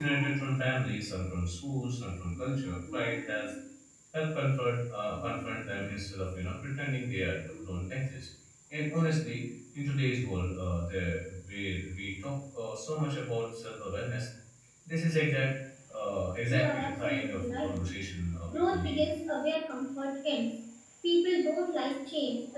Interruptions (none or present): present